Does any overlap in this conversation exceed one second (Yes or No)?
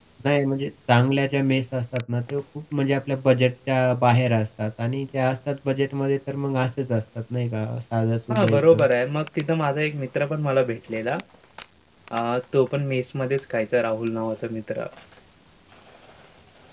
No